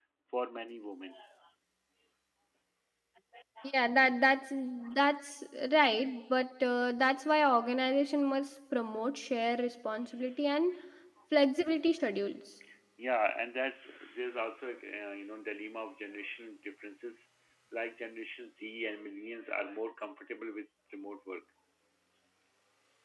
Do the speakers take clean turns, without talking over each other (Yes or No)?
Yes